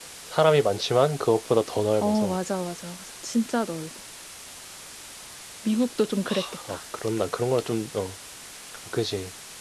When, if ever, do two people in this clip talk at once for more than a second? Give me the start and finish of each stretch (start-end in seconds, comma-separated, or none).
none